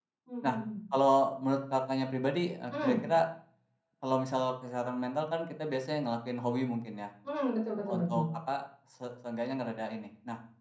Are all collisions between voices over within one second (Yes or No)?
Yes